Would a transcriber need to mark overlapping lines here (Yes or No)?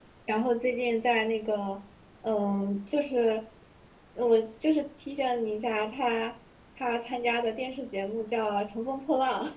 No